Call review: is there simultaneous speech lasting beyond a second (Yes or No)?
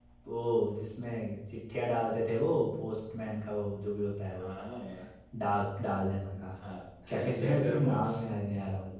Yes